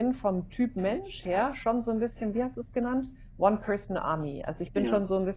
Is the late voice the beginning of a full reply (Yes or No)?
No